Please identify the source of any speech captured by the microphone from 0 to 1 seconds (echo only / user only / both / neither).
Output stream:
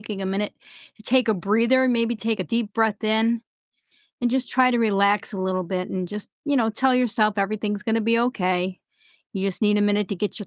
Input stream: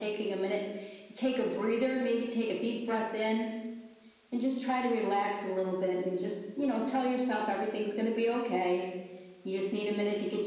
echo only